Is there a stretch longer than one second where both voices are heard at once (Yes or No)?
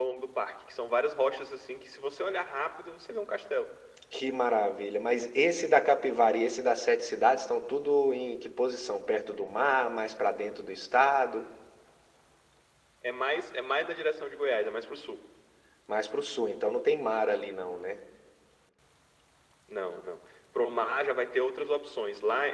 No